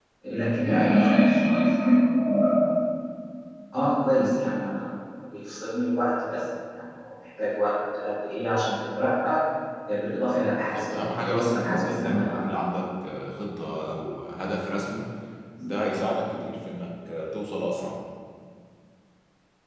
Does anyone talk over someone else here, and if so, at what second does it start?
10.6 s

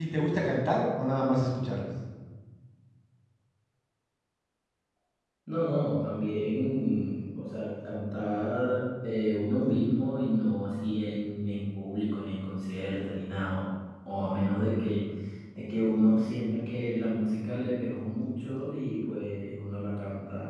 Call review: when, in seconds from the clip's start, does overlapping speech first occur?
none

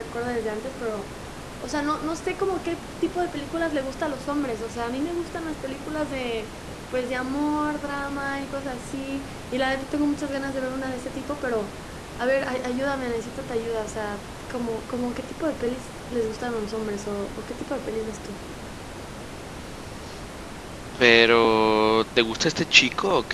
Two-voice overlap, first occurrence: none

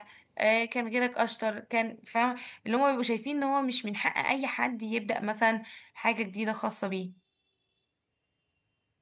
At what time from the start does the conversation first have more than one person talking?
none

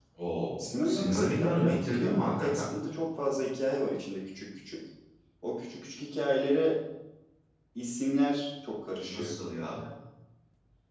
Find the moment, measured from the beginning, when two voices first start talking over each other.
0.6 s

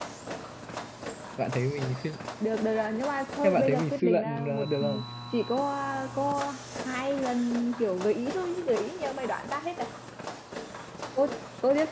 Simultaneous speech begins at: 3.4 s

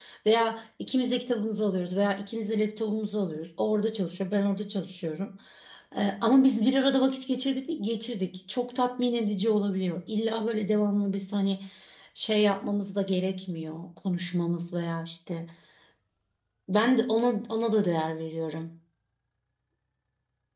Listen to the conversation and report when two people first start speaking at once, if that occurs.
none

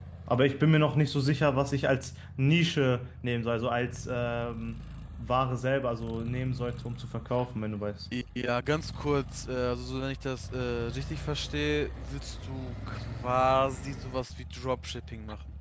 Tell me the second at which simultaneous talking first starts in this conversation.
none

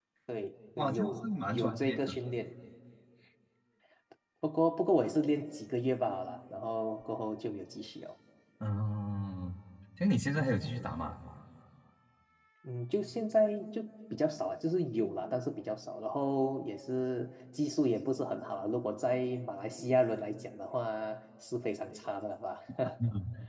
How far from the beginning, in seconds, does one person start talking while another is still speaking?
0.8 s

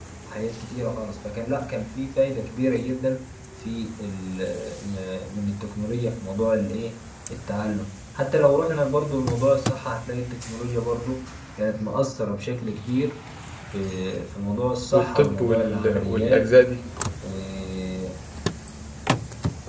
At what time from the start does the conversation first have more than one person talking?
14.9 s

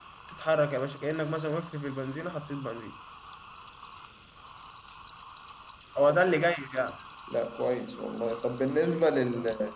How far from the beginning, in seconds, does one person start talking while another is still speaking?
none

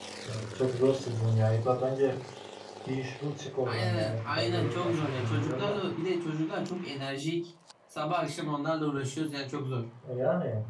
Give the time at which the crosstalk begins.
3.7 s

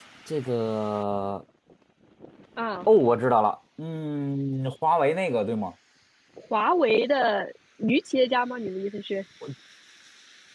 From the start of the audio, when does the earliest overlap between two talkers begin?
none

